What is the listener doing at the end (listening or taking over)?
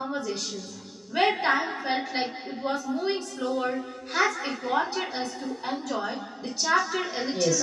taking over